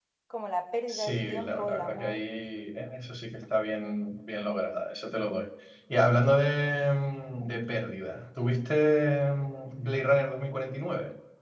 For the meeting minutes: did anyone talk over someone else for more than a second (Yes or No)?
Yes